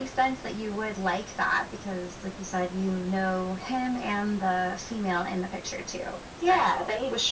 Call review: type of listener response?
taking over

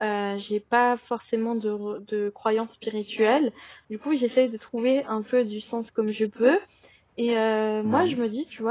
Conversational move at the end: listening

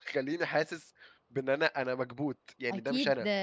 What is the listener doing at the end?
taking over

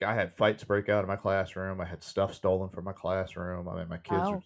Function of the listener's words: listening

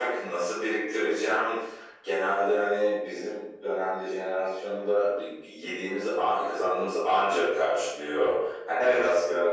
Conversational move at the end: listening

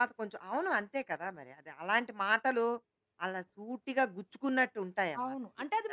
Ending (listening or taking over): taking over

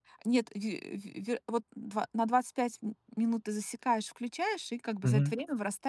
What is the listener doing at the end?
listening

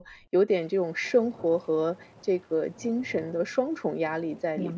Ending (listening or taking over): taking over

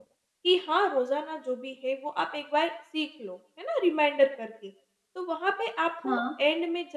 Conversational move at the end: listening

